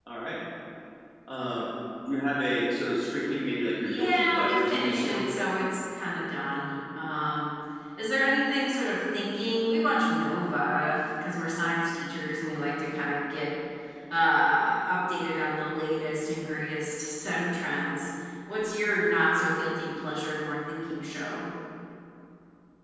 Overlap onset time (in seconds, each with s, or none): 3.8 s